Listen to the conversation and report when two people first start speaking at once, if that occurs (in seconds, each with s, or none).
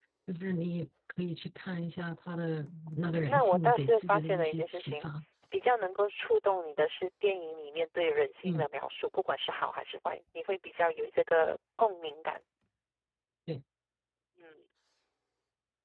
3.3 s